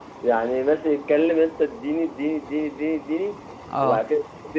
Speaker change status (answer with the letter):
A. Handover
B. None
B